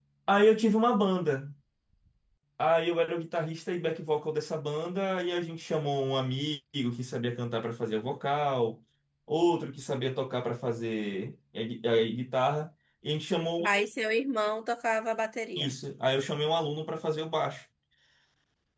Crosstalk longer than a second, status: none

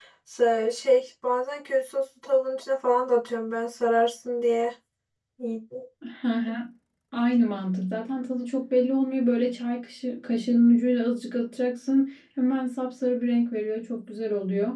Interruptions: none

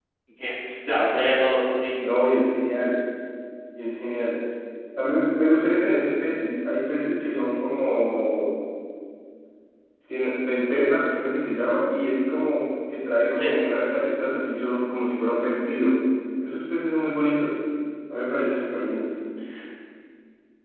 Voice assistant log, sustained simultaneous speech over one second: none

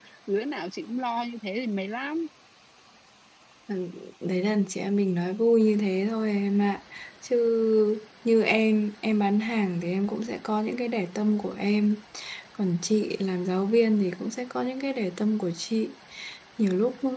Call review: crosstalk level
none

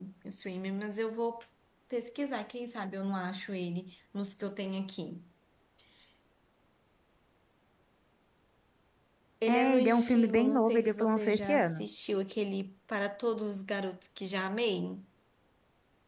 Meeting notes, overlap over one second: present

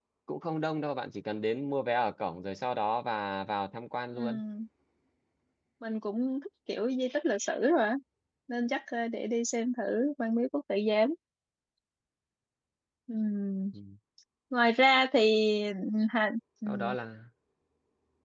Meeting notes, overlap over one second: none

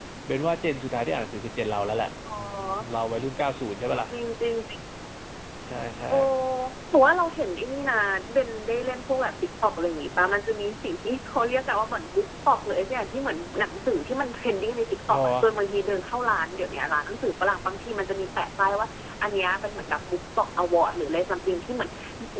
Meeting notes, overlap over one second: none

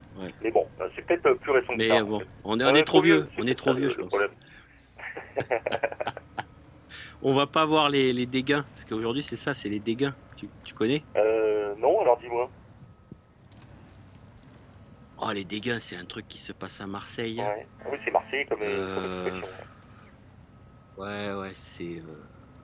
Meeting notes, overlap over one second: present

